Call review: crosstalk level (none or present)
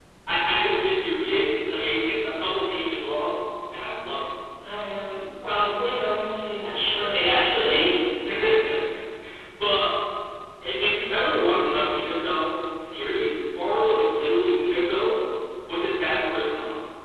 none